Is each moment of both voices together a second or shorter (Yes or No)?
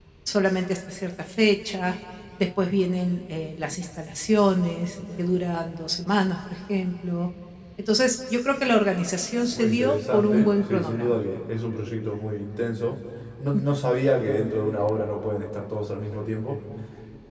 No